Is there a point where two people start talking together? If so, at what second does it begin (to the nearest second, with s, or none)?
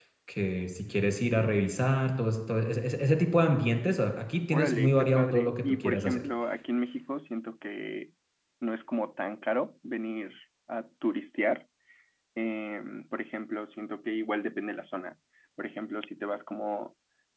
5 s